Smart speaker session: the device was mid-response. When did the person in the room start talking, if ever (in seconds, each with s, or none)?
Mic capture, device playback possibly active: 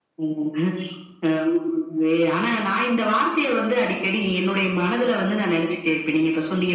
none